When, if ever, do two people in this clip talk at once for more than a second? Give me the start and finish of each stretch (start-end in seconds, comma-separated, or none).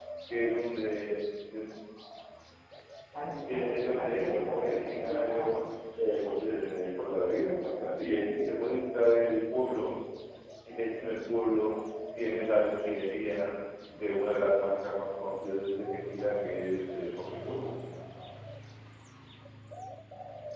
3.5-5.5